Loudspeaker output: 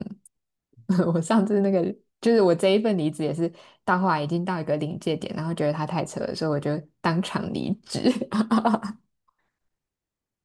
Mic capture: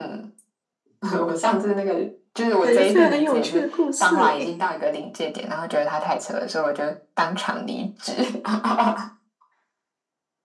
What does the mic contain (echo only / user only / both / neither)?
both